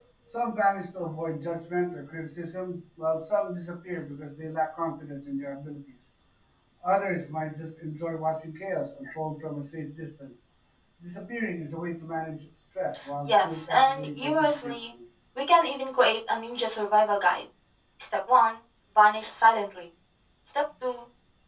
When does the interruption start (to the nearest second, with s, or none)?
13 s